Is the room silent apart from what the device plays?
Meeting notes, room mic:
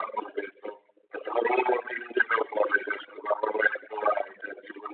Yes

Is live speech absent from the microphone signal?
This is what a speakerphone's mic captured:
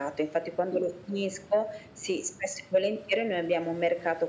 Yes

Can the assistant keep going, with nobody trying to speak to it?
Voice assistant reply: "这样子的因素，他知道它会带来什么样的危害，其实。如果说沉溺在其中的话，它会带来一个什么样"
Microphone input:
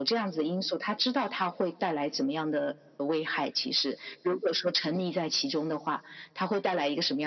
Yes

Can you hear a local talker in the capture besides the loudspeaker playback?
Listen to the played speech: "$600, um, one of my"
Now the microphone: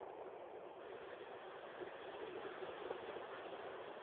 No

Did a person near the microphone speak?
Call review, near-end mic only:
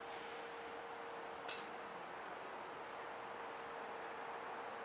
No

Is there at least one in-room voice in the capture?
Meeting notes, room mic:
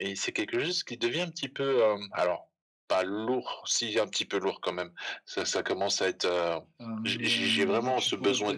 Yes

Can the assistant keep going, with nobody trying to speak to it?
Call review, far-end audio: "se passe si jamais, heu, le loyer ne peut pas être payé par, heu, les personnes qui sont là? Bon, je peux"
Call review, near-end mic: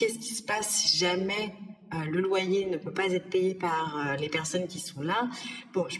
Yes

